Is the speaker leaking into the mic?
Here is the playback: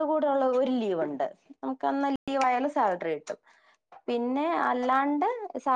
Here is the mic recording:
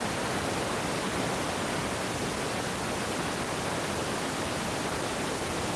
No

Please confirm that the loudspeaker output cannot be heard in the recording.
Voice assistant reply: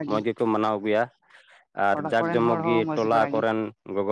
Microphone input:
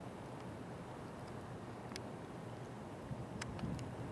Yes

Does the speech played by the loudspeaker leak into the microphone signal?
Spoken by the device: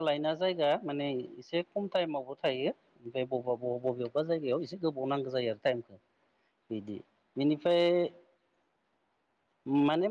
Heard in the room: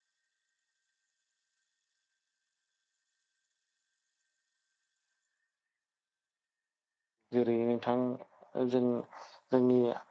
No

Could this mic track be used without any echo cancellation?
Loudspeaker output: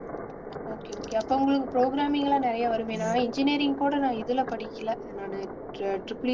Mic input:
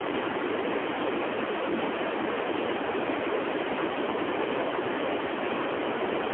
Yes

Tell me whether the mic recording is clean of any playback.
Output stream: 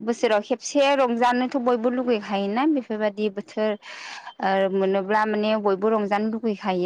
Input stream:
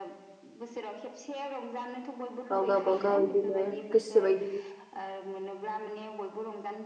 No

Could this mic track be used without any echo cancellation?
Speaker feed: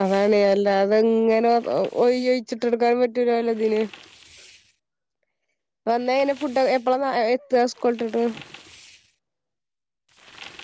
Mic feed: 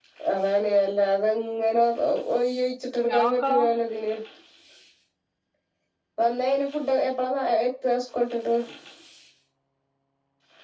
No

